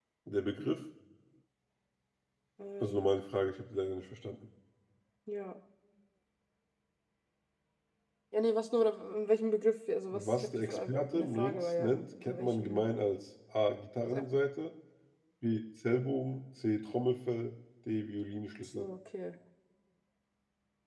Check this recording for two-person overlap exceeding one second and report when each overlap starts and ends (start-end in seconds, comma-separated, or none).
10.1-12.8